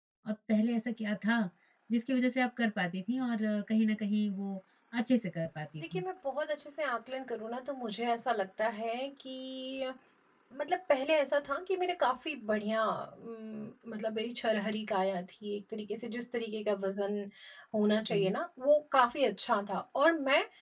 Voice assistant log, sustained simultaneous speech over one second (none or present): none